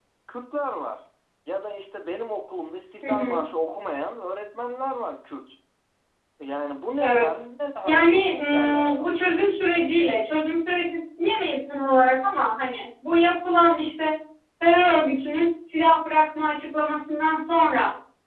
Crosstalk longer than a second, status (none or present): present